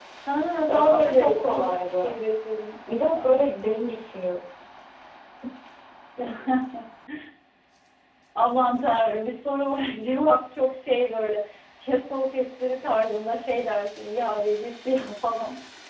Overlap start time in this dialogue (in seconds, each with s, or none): 0.7 s